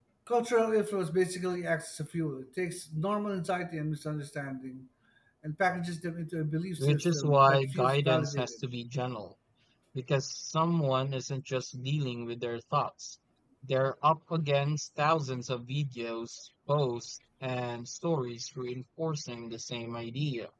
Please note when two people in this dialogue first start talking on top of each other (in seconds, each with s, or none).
6.8 s